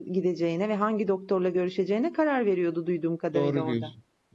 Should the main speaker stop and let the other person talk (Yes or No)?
Yes